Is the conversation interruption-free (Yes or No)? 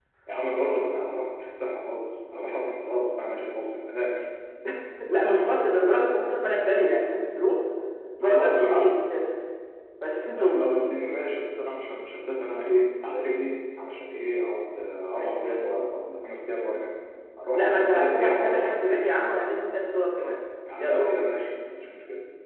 No